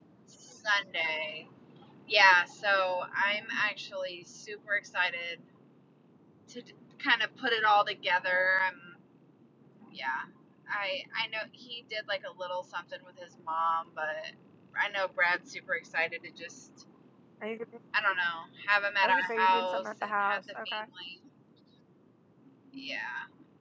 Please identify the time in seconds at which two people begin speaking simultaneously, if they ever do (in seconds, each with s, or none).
19.0 s